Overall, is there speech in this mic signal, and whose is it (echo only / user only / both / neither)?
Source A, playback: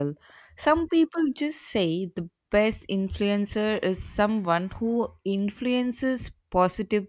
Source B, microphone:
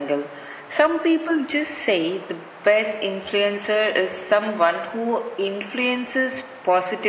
echo only